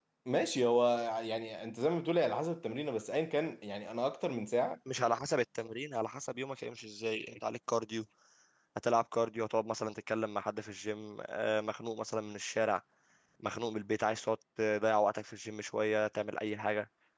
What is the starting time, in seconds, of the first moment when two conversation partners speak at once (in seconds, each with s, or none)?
none